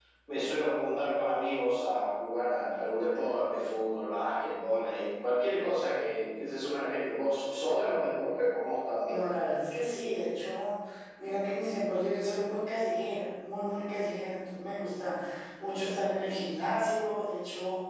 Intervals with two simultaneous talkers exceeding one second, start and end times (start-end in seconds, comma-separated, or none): none